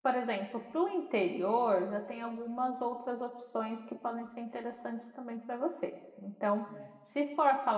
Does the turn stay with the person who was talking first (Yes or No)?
Yes